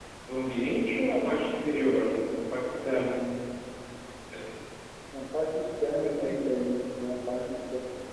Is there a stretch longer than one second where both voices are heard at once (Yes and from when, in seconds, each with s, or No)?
No